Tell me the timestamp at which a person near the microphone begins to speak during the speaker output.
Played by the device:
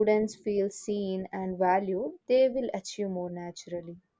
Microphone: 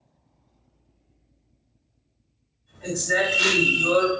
2.8 s

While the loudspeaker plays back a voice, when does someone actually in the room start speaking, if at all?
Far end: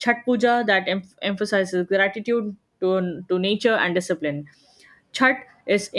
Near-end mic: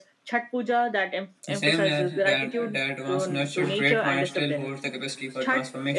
1.5 s

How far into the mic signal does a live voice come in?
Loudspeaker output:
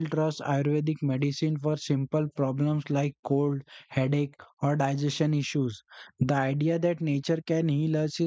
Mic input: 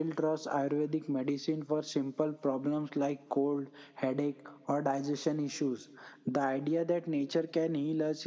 none

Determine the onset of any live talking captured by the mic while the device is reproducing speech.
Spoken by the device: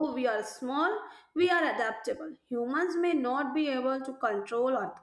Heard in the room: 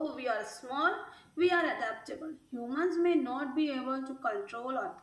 none

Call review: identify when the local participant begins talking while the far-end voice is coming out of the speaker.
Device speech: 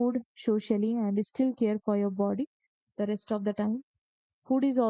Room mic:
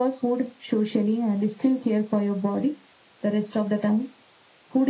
none

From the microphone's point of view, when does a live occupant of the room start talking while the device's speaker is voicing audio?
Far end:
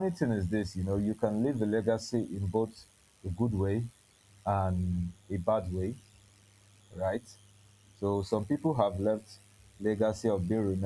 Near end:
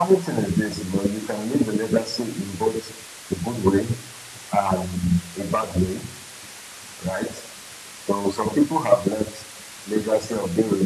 none

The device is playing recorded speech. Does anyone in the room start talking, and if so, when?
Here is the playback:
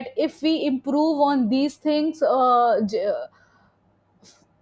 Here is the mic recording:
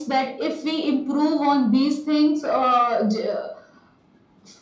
none

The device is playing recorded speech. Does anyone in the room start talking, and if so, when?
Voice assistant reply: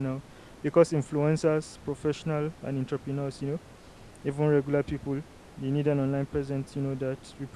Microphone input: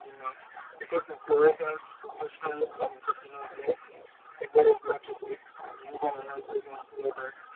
none

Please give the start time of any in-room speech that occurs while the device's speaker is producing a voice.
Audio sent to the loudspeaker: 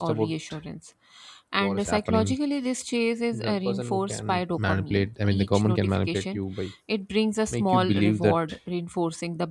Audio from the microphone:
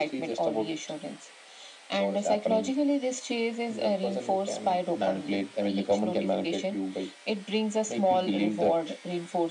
none

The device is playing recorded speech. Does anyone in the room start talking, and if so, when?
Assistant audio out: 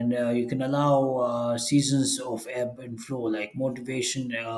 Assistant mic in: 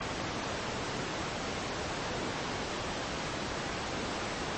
none

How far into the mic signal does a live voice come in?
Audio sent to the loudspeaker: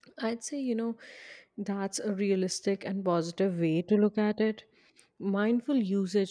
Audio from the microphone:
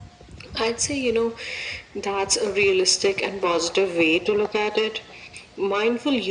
none

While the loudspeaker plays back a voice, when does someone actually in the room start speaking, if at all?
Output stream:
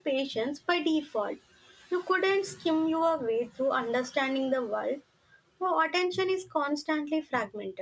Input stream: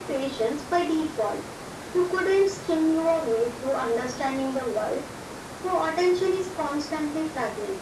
none

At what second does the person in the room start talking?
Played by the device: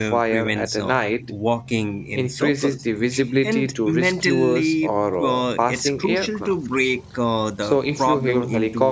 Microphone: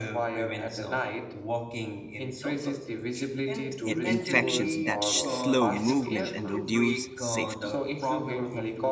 3.8 s

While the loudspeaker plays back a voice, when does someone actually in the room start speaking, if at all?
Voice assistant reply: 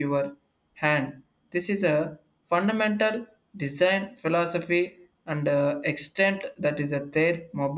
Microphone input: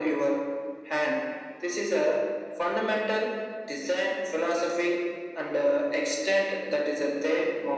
none

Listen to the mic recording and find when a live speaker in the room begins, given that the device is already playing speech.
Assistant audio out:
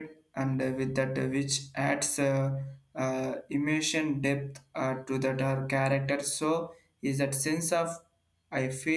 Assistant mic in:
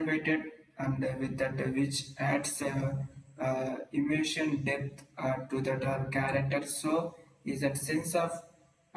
none

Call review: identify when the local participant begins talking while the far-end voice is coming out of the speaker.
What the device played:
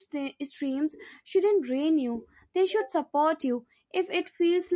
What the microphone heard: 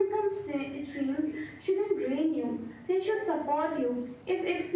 none

